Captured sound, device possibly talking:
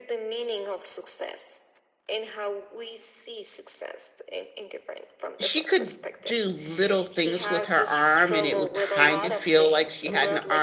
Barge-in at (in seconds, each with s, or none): 5.4 s